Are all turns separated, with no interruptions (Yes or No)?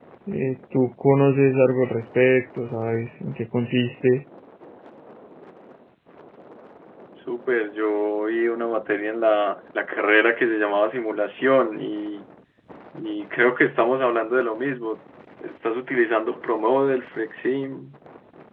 Yes